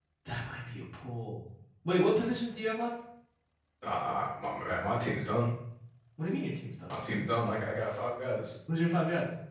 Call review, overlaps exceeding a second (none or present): none